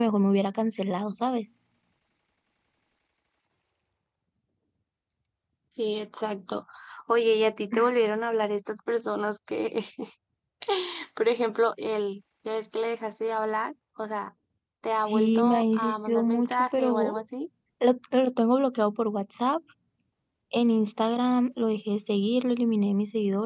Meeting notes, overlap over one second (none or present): present